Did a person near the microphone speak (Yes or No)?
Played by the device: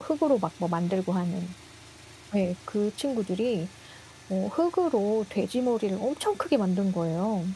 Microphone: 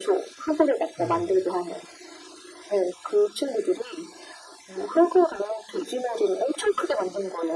Yes